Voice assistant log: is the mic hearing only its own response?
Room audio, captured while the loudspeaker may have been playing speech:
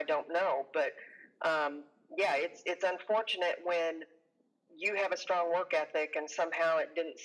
Yes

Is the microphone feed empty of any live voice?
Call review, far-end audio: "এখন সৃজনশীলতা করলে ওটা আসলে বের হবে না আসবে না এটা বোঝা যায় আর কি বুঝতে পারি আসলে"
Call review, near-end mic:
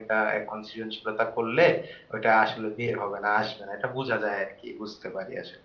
Yes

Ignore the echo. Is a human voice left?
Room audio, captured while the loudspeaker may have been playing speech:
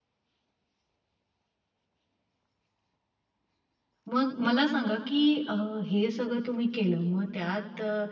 Yes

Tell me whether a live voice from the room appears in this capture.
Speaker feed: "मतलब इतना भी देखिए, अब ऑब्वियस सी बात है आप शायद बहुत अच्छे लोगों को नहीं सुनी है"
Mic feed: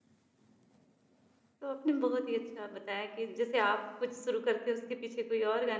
Yes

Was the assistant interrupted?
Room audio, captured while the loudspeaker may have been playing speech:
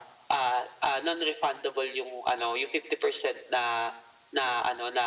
No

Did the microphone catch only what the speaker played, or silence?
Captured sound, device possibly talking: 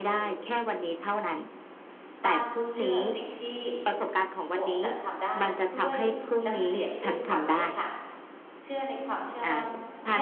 No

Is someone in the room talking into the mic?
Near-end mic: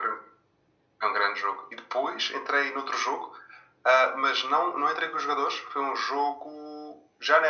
No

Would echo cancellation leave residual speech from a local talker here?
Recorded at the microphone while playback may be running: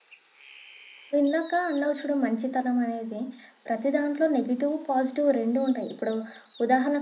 Yes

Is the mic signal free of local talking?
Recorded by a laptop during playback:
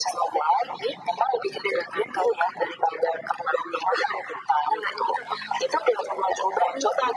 Yes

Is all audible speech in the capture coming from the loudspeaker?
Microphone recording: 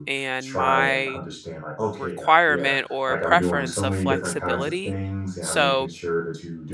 No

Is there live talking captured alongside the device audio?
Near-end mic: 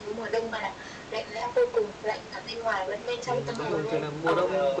Yes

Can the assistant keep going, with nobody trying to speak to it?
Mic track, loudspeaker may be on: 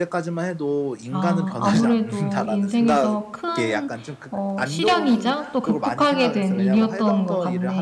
No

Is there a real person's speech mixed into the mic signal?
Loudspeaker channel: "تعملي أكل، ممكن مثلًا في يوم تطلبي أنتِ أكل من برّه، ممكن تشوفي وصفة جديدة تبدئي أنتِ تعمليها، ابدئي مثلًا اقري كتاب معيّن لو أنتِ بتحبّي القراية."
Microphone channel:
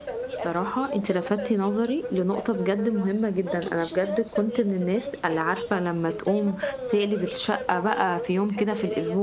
Yes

